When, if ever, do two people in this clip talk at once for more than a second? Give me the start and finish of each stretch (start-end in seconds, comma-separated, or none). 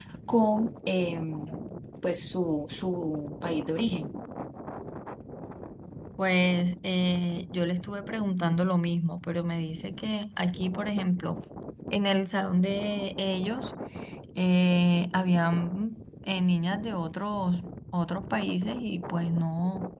none